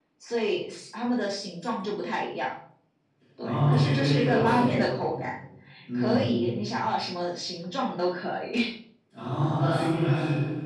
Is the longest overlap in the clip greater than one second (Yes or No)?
Yes